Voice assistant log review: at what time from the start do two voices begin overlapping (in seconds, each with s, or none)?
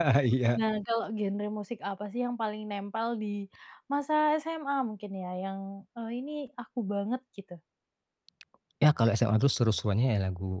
none